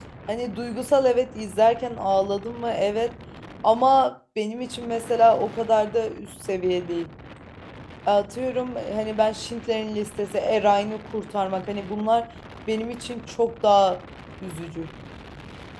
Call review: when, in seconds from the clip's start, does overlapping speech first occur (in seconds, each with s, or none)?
none